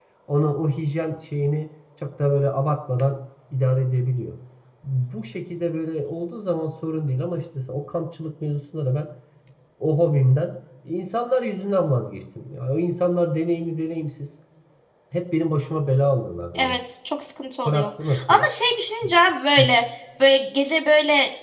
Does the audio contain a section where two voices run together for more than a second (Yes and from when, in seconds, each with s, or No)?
No